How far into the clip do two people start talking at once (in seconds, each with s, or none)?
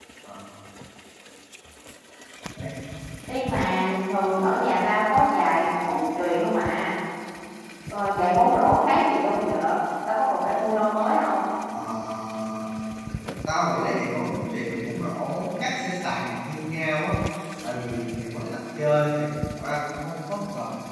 none